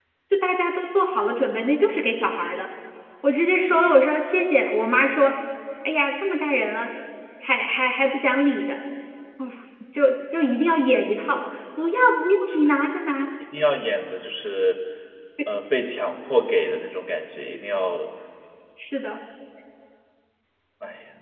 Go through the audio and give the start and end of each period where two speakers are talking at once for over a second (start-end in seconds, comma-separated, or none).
none